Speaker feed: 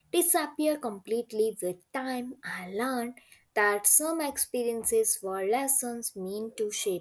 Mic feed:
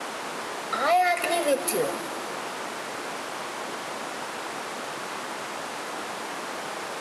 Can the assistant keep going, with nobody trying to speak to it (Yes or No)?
No